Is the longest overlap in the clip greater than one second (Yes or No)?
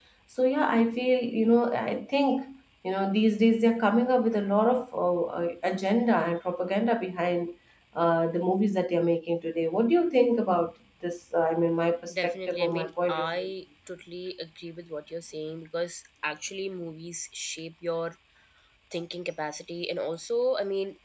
Yes